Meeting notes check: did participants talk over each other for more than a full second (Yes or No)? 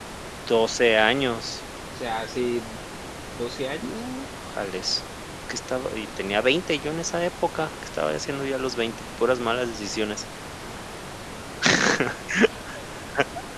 No